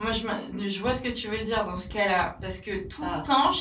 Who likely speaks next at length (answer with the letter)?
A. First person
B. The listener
A